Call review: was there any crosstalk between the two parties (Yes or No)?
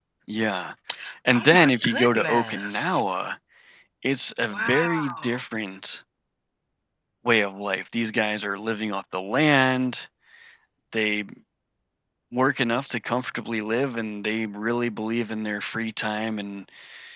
Yes